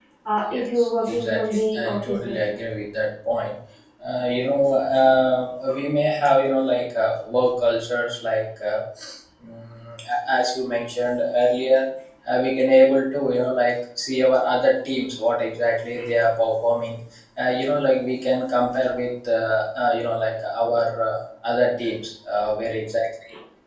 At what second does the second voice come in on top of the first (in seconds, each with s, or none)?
0.5 s